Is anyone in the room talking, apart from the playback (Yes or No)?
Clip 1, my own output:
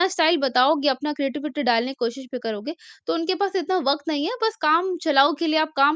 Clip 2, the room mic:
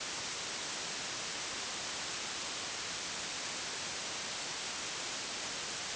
No